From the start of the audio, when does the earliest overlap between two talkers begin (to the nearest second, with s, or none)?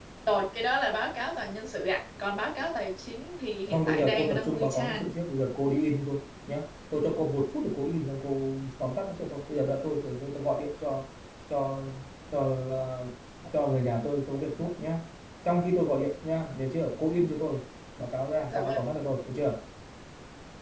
4 s